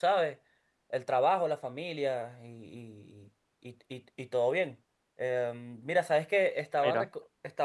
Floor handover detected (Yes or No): No